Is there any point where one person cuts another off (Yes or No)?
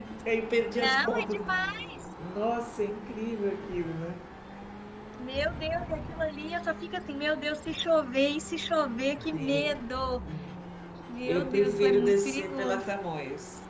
Yes